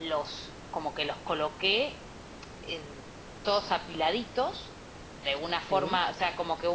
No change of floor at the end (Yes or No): Yes